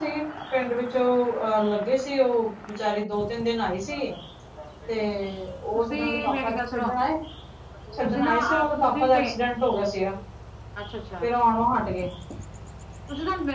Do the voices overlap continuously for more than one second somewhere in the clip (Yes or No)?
Yes